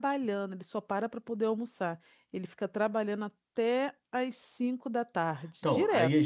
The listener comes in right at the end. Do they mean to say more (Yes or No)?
Yes